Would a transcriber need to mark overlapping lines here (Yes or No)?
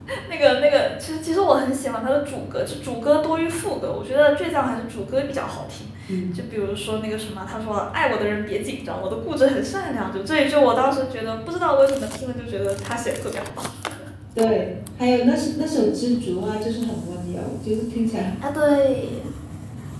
No